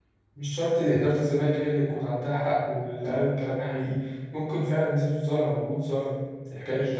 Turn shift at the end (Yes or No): Yes